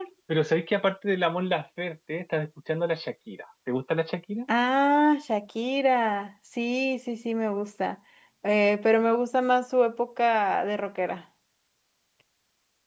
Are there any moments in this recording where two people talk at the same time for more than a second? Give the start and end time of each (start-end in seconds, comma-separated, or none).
none